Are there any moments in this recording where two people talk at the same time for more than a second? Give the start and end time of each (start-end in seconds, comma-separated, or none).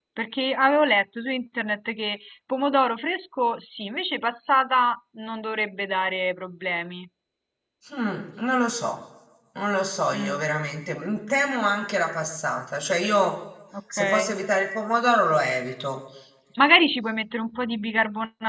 none